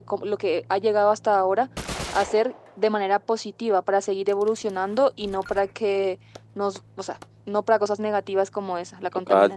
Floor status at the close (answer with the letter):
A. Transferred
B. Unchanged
A